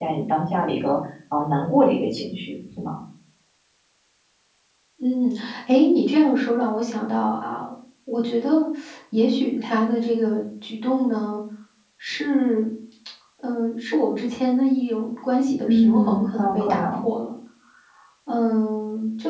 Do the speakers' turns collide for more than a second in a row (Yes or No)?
Yes